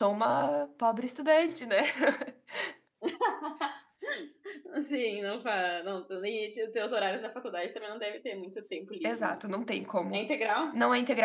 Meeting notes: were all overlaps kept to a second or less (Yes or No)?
Yes